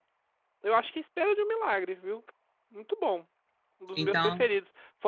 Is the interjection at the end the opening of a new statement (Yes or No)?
No